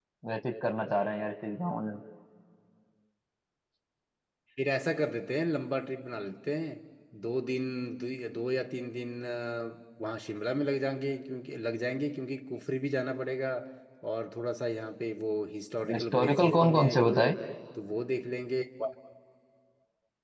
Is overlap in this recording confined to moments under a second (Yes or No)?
No